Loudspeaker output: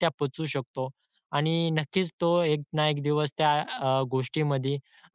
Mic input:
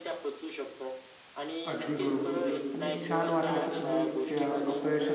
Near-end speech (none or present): present